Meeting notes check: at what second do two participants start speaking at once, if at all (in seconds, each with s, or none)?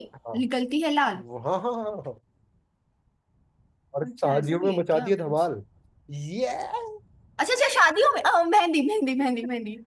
4.0 s